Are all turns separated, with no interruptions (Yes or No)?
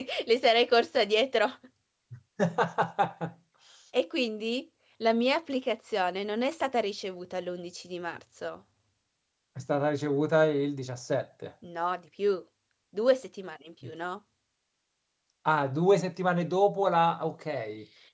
Yes